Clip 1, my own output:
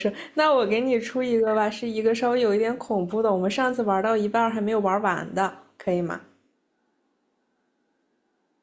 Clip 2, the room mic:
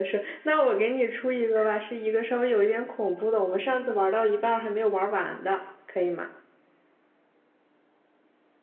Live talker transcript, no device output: none

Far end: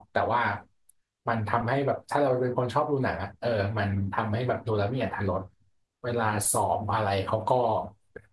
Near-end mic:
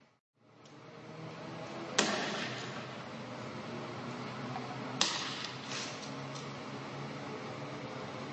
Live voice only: none

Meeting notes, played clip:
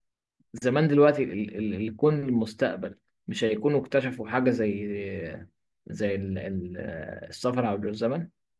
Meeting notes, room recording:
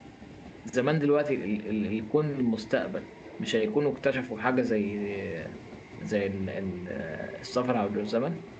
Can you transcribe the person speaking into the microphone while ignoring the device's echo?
none

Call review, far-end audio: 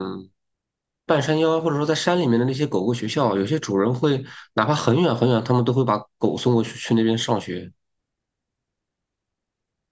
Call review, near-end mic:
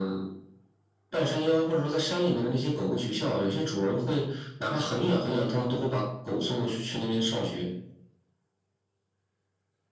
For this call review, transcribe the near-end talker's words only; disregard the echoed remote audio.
none

